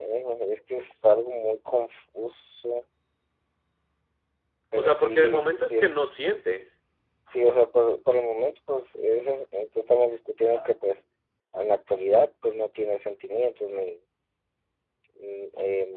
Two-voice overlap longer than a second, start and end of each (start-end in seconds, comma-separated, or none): 4.8-6.0